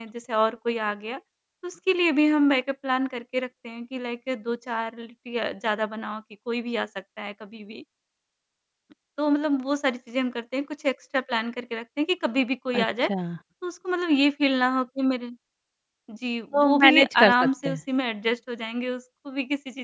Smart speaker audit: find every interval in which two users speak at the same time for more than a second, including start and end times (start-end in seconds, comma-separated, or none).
16.5-17.8